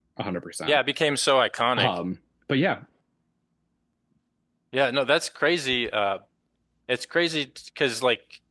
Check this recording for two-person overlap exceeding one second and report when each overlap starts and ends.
none

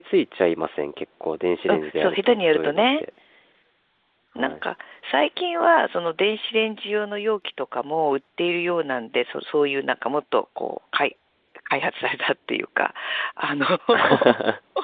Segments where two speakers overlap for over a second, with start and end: 1.7-3.0

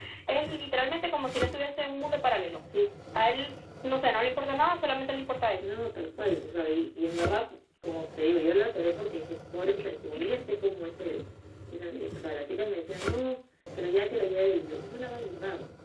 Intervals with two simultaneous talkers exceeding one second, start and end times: none

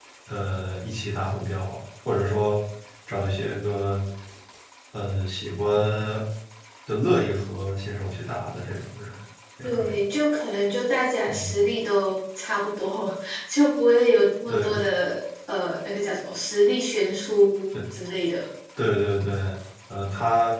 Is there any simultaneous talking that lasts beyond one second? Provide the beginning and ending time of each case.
none

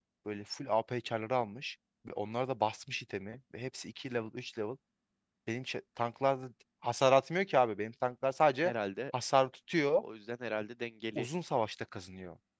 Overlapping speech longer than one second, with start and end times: none

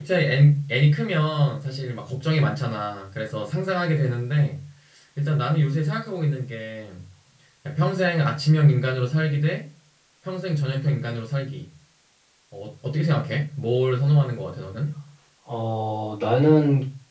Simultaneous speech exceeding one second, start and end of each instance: none

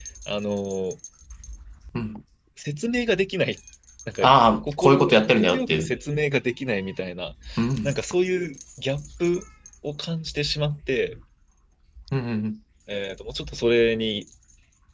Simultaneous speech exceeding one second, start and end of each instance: 4.6-5.9

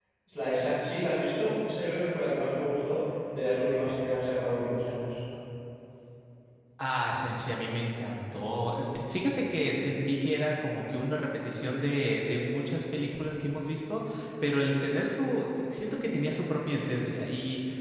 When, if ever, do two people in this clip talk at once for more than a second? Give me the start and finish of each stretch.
none

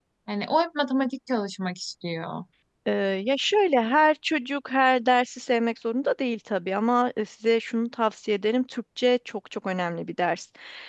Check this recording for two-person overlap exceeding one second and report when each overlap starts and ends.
none

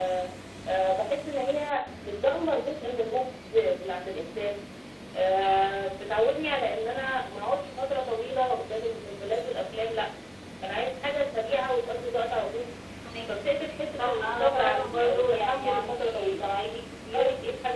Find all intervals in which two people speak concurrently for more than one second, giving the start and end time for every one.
14.0-16.5

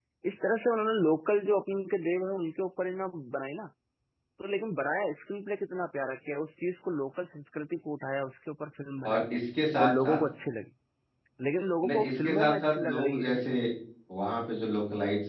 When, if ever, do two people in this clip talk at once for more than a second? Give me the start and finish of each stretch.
11.8-13.4

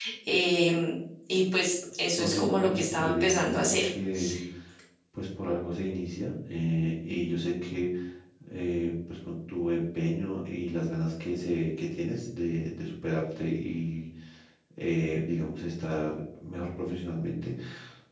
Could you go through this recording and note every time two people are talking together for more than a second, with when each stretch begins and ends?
2.1-3.9

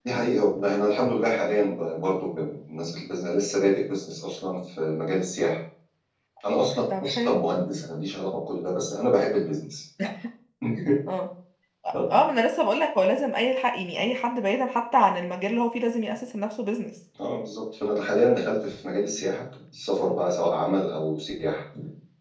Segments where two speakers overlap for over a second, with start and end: none

